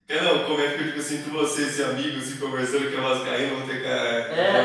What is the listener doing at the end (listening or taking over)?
taking over